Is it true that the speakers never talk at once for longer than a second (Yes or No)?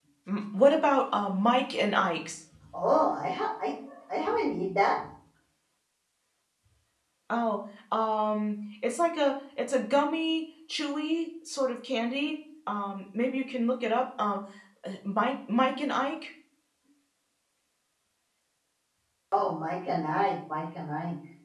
Yes